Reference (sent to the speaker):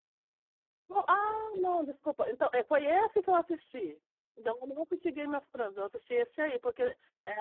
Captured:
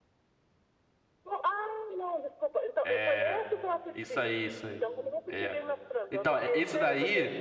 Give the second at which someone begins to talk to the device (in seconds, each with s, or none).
2.8 s